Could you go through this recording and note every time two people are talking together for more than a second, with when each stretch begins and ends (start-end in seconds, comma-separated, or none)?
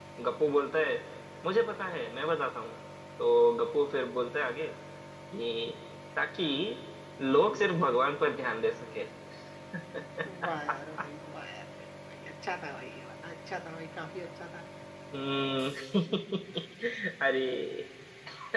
none